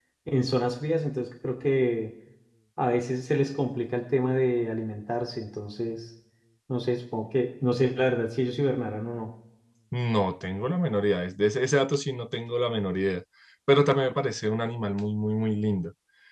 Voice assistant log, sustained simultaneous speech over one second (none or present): none